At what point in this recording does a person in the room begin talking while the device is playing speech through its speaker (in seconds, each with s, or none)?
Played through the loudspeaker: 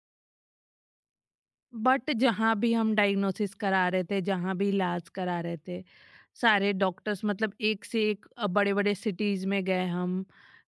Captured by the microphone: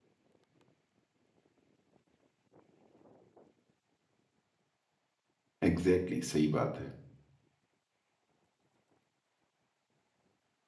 5.6 s